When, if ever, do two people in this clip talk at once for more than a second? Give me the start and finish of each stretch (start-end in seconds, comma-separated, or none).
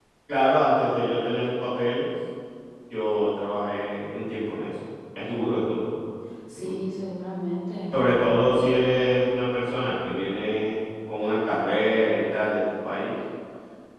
none